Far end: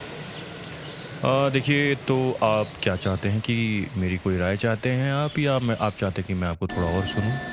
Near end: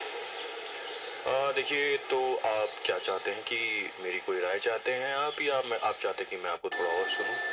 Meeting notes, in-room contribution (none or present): none